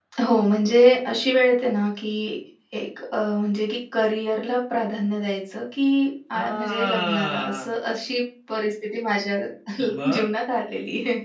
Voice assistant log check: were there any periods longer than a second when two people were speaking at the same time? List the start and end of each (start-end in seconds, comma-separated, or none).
6.3-7.7